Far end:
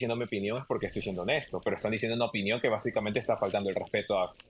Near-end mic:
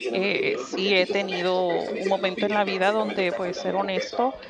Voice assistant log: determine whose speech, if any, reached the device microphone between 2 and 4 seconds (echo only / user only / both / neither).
both